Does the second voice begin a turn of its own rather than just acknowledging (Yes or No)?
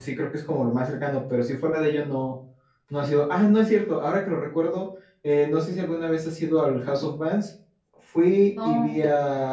No